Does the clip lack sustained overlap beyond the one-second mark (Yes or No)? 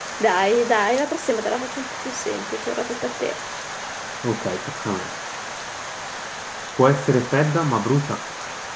Yes